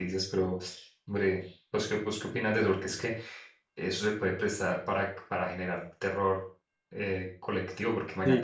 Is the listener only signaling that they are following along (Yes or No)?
Yes